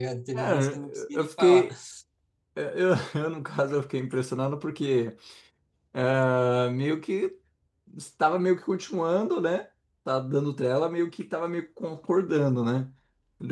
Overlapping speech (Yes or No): Yes